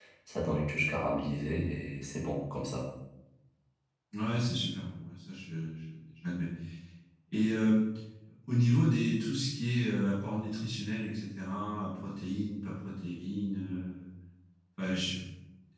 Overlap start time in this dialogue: none

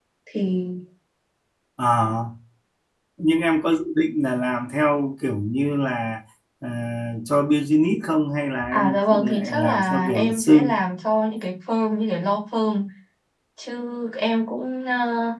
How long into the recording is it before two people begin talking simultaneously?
8.7 s

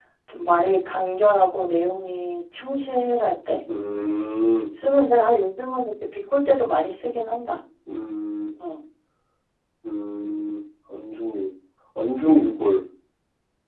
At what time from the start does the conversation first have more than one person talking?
none

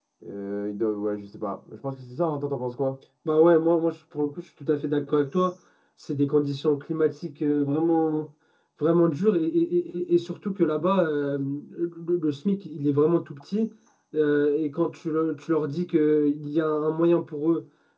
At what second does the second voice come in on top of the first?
none

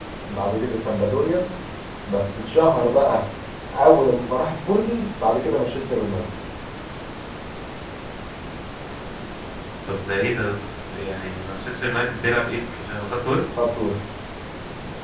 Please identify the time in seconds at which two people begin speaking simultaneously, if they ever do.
none

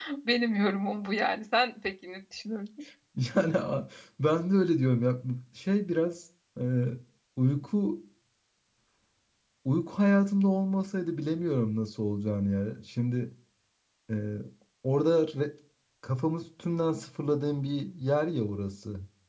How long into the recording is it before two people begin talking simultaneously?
none

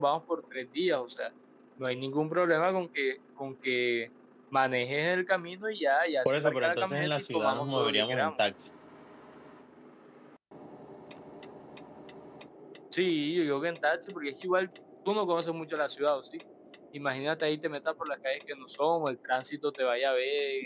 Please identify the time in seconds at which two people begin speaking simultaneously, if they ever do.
6.2 s

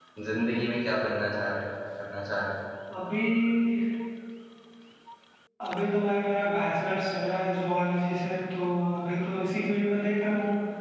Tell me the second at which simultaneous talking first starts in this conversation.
none

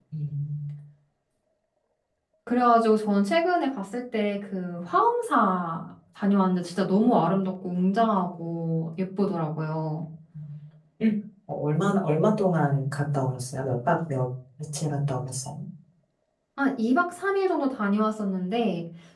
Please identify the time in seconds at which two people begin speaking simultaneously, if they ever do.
none

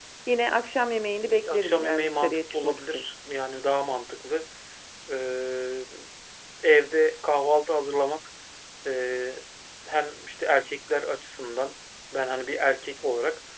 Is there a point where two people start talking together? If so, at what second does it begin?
1.2 s

